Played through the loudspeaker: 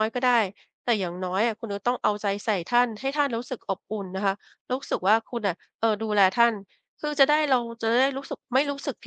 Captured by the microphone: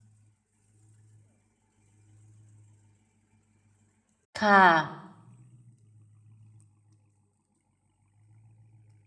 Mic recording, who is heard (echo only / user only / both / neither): user only